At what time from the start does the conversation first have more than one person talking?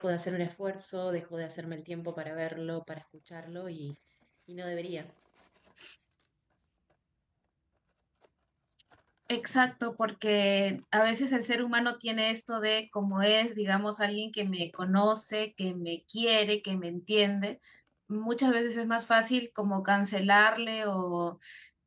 none

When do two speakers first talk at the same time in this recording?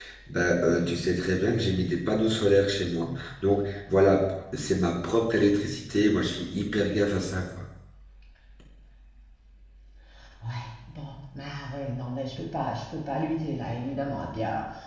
none

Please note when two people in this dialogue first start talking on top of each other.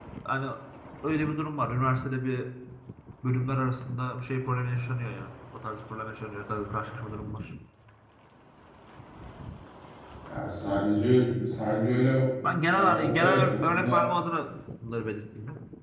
12.7 s

